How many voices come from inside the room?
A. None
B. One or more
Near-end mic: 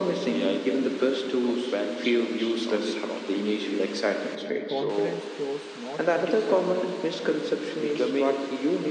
B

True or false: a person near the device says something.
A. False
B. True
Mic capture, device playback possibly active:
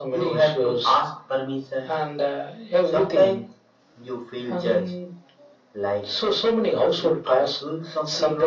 A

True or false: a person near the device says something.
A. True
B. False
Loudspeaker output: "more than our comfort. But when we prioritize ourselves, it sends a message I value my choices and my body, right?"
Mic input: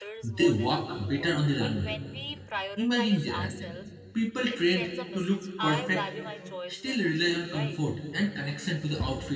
A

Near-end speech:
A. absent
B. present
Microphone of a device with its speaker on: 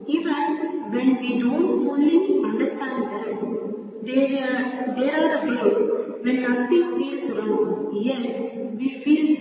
A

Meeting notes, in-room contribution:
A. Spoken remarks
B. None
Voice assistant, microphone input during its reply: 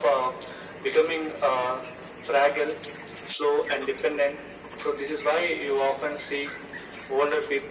B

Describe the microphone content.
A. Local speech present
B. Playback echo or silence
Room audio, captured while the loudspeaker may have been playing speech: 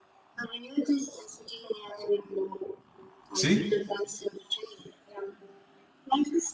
A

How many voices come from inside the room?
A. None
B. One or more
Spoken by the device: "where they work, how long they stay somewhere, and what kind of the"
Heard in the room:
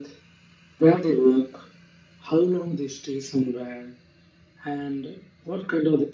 A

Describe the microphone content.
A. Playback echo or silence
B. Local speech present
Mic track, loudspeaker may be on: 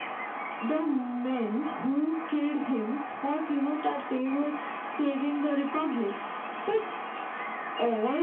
A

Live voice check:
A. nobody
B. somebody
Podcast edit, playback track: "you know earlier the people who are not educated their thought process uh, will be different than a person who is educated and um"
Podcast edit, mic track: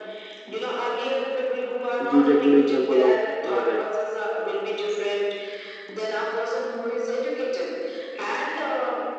B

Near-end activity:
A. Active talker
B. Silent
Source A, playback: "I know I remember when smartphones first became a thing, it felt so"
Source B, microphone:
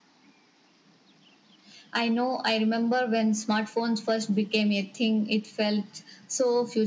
B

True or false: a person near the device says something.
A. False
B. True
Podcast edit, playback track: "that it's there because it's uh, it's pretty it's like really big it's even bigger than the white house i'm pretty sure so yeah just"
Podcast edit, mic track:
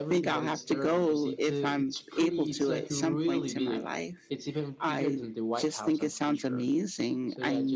B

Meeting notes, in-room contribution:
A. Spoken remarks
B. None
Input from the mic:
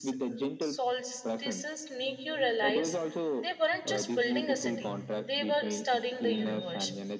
A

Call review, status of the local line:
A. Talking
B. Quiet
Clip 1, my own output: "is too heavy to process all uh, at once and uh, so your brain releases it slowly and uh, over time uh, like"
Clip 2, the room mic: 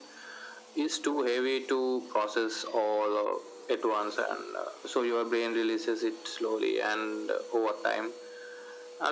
B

